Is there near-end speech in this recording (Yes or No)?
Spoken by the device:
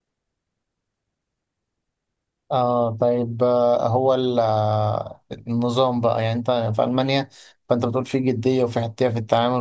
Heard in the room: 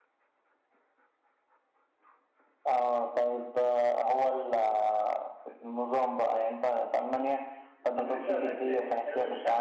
Yes